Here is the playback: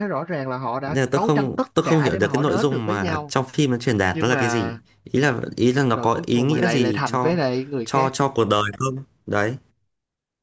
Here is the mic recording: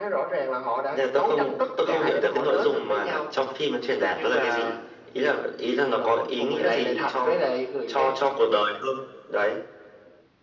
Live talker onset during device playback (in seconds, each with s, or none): none